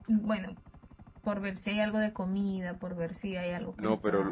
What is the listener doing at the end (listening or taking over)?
taking over